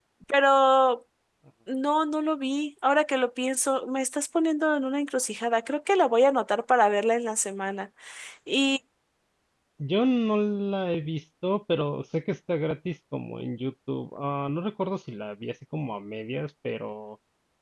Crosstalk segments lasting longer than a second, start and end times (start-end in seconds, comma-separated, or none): none